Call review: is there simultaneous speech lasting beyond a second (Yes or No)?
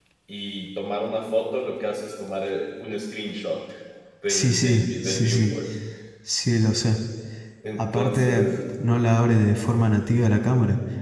Yes